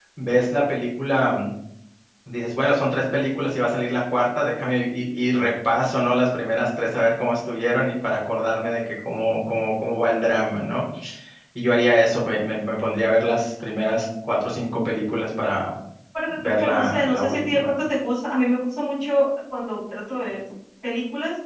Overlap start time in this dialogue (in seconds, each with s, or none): 16.3 s